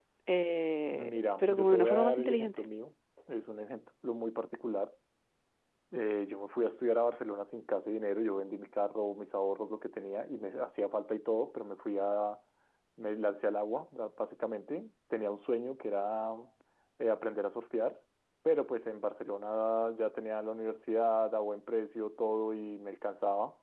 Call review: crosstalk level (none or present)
present